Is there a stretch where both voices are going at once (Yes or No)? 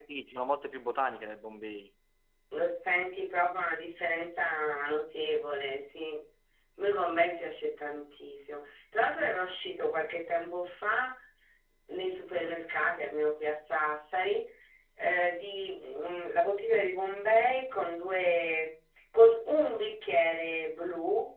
No